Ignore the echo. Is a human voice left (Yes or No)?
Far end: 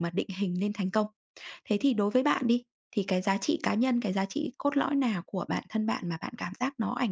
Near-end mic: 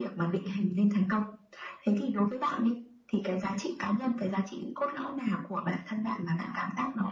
No